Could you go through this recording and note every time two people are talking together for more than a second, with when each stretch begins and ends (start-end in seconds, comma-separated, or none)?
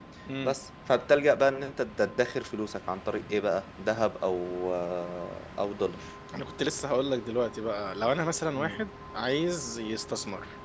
none